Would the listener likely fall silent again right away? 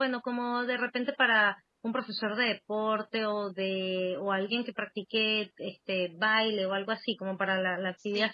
No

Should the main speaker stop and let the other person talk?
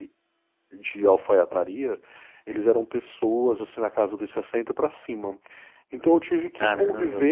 No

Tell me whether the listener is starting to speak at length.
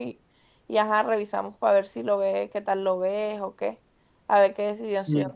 Yes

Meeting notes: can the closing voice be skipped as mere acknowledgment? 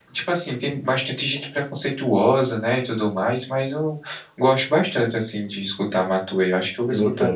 No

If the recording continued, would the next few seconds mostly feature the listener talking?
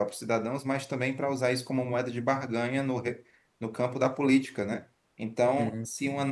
No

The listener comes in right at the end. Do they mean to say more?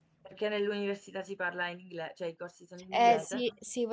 Yes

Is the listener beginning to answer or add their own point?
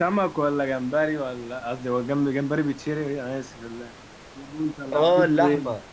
Yes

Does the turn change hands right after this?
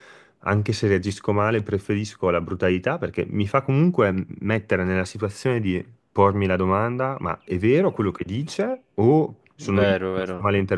No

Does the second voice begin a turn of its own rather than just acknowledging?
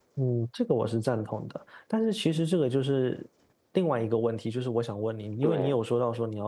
No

